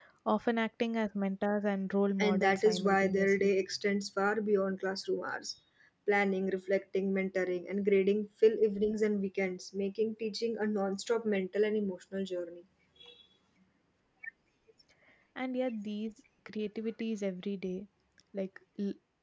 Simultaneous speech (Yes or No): Yes